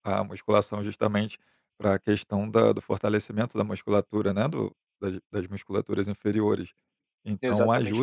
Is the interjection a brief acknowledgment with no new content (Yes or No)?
Yes